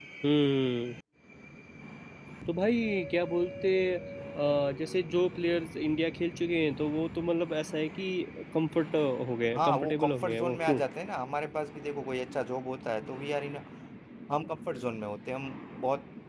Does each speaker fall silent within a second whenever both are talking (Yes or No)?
No